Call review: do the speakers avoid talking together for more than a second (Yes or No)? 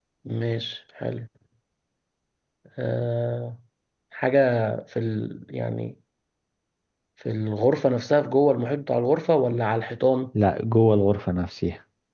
Yes